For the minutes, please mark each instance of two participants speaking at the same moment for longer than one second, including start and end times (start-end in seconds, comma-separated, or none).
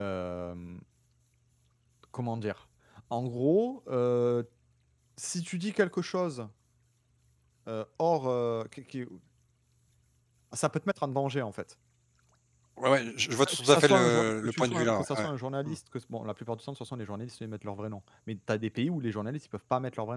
13.4-15.3